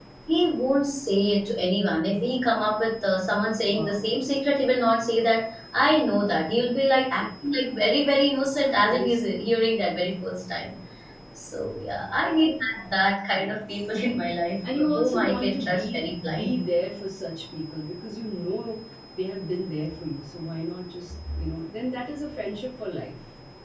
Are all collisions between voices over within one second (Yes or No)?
No